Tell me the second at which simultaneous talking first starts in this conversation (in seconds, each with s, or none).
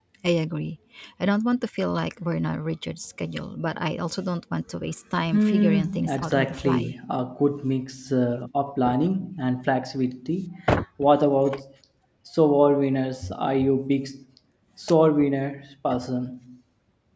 5.3 s